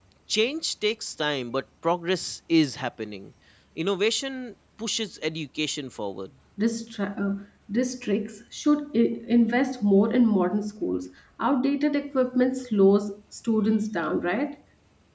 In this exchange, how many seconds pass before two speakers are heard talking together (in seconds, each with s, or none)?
none